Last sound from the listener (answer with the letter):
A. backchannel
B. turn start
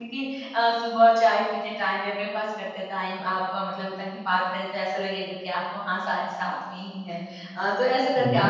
A